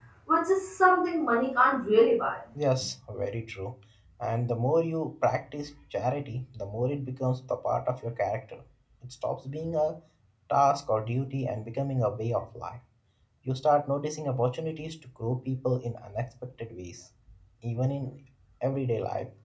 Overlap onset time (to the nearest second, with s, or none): none